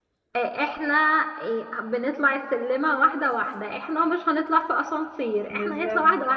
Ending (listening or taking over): listening